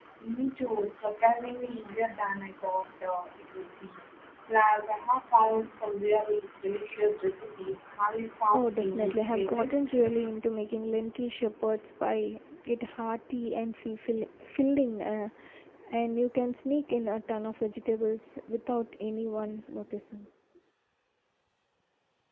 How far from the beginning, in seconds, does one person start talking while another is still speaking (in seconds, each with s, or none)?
8.5 s